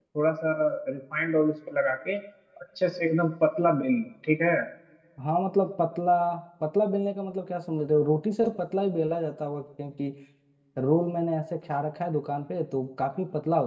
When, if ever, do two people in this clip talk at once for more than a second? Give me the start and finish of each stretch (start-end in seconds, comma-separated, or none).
none